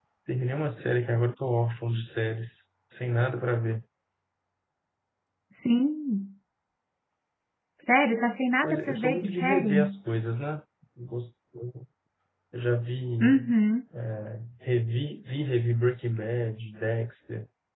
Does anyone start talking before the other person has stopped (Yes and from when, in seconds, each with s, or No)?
Yes, from 8.6 s